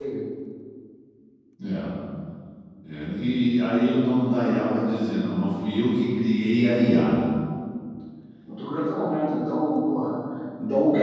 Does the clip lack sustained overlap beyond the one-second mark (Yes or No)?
Yes